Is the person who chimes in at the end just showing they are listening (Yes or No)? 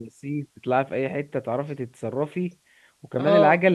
Yes